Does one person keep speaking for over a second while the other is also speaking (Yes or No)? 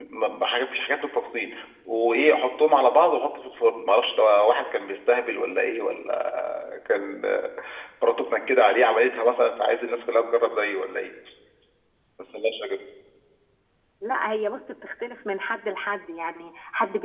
No